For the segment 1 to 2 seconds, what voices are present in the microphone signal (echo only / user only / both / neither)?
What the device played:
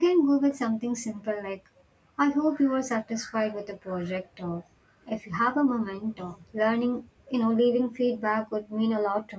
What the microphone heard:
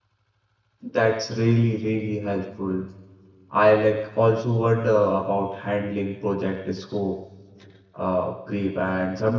user only